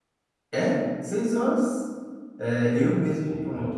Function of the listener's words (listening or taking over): listening